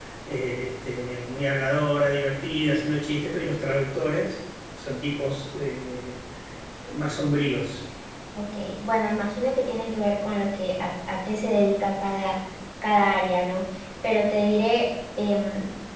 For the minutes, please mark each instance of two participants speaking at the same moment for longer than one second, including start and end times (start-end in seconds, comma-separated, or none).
none